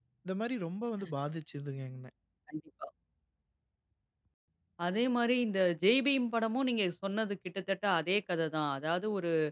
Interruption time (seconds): none

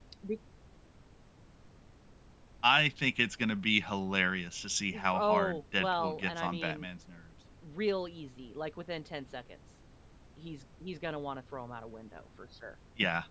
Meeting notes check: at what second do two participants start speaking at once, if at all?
4.9 s

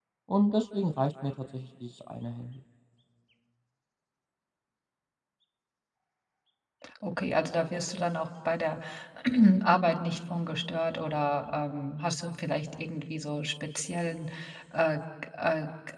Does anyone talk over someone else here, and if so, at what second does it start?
none

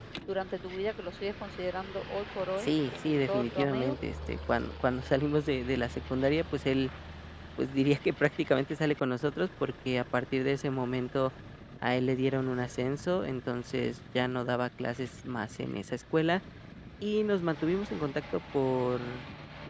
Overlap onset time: 2.6 s

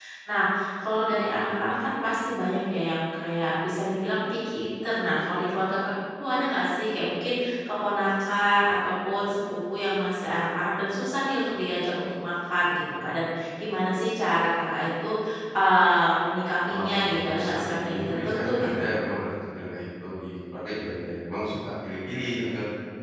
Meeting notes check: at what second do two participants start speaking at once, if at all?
16.7 s

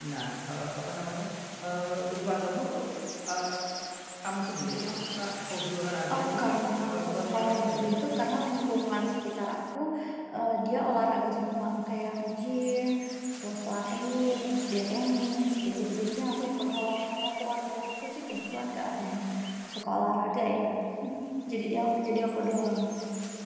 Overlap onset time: 6.1 s

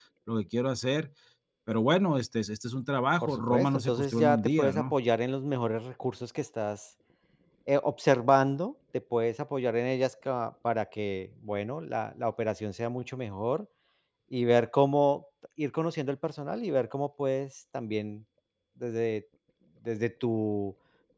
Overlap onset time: 3.2 s

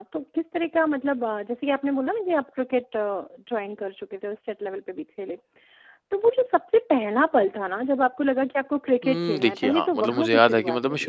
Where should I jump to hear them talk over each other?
9.0 s

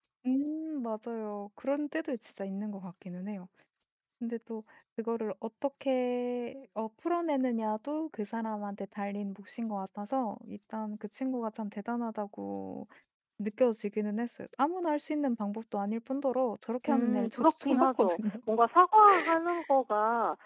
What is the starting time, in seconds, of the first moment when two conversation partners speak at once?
16.9 s

